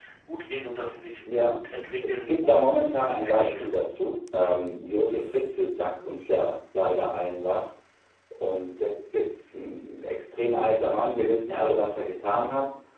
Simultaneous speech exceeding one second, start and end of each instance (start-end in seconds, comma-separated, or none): 2.1-3.7